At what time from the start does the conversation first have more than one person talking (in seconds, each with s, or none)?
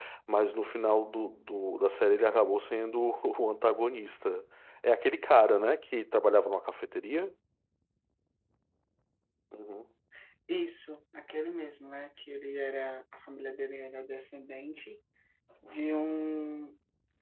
none